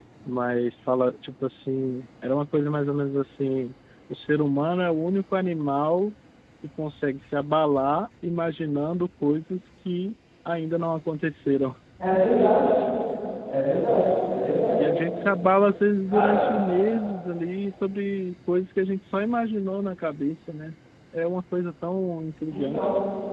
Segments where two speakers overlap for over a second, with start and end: none

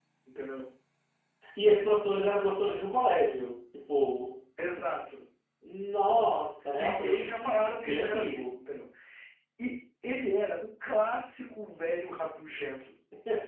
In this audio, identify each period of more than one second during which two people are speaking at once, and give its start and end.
6.8-8.5

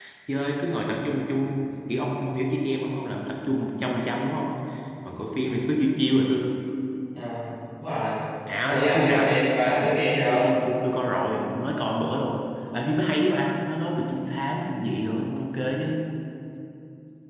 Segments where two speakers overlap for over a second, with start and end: 8.6-10.4

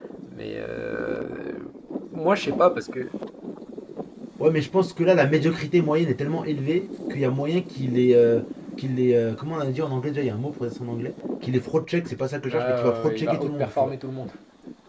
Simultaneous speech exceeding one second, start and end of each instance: 12.5-13.9

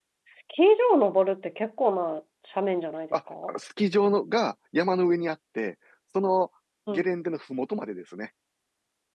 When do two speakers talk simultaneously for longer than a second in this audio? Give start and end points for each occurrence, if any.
none

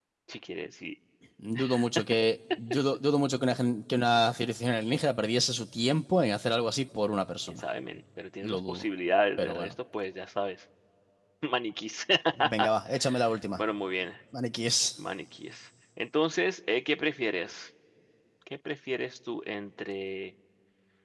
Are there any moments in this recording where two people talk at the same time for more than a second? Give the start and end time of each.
none

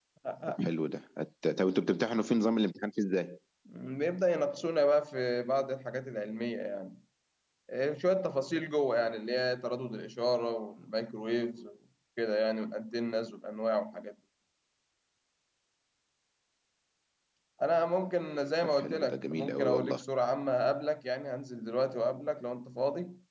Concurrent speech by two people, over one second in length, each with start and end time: 18.6-20.0

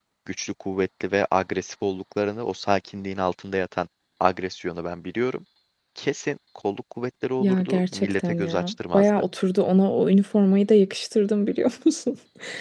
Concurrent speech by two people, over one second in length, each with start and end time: 7.4-9.1

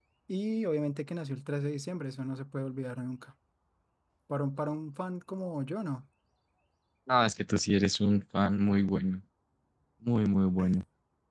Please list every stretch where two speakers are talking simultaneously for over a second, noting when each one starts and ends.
none

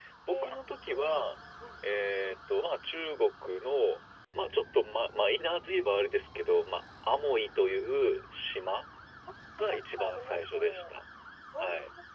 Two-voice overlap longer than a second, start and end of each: 9.6-10.9

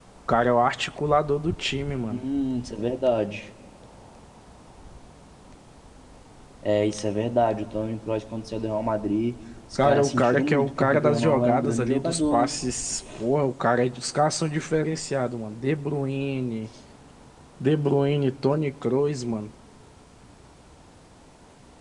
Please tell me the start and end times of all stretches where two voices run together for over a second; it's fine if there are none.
9.8-12.5

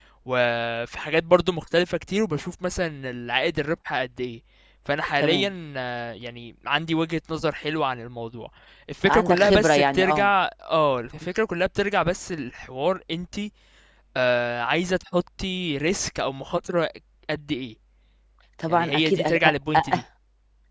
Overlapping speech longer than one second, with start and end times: 9.1-10.3, 18.7-20.0

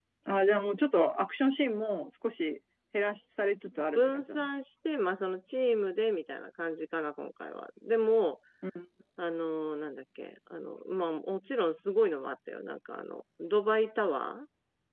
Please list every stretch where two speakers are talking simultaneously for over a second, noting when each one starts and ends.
none

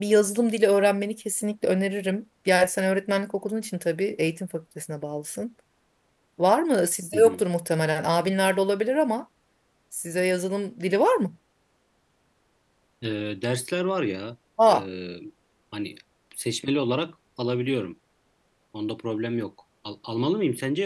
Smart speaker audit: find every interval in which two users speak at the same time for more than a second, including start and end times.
none

